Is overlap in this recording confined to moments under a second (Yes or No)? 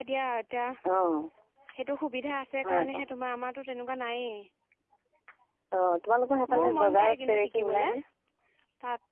No